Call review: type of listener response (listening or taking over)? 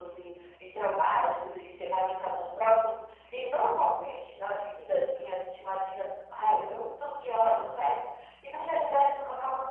listening